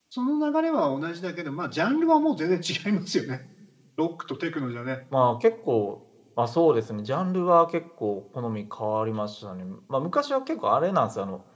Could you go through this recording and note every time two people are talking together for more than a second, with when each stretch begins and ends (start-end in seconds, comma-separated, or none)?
none